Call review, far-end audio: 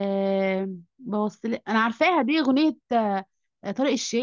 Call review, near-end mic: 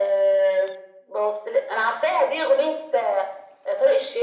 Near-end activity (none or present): none